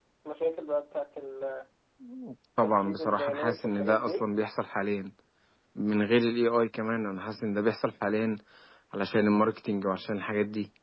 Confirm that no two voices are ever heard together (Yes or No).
No